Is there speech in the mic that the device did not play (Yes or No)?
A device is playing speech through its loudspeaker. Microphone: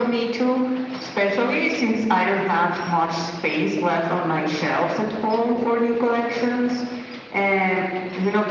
No